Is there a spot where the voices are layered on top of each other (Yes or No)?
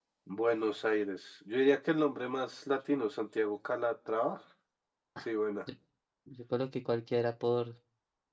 No